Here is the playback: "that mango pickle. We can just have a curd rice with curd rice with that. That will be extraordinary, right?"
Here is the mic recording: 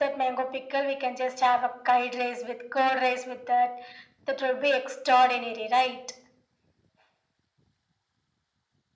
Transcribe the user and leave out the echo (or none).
none